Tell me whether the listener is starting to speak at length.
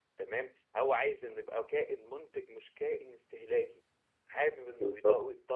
No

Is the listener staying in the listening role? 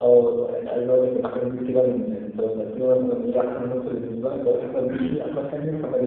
Yes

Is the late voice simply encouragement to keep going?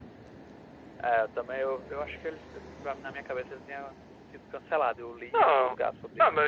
No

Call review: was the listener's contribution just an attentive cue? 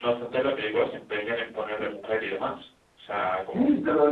No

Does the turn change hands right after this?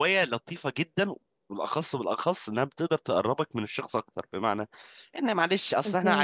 No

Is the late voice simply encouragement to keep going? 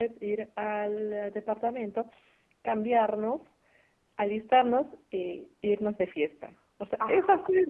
Yes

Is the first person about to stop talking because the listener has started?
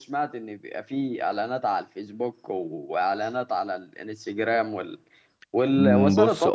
Yes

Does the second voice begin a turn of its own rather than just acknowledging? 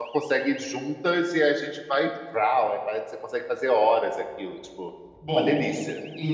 Yes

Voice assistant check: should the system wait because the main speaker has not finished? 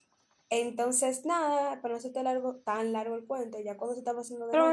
No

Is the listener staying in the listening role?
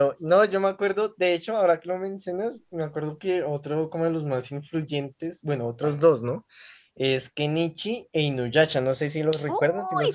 No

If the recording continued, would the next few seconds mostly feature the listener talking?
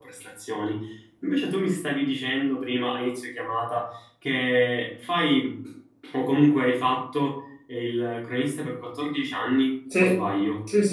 Yes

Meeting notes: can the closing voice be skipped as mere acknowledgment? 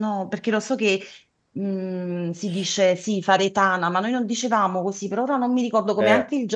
No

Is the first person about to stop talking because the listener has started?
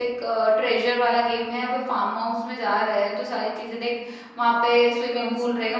No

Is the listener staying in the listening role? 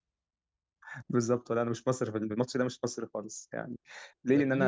No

